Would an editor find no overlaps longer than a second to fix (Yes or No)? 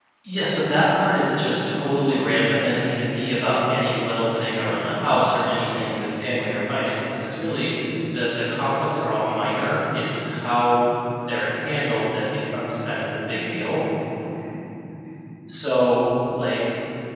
Yes